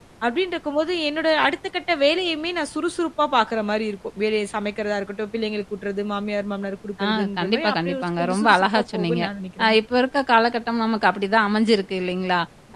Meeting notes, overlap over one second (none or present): present